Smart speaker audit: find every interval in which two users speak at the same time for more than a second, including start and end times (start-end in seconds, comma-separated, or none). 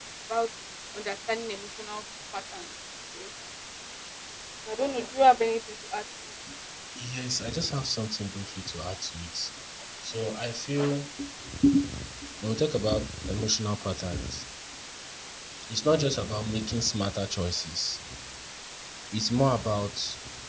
none